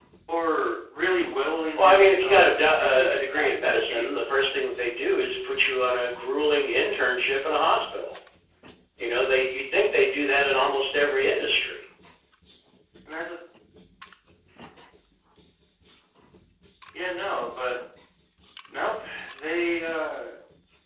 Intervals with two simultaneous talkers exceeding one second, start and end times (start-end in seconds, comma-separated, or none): 1.8-4.5